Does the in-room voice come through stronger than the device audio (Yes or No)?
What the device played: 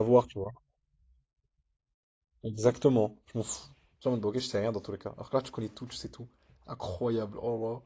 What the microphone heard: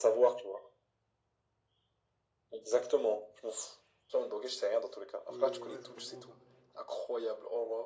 No